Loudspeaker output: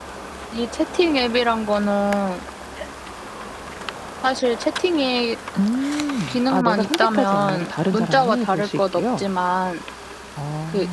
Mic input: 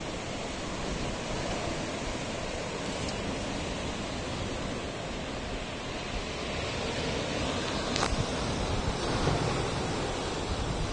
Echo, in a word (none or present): none